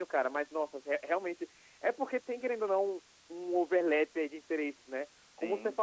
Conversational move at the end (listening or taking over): listening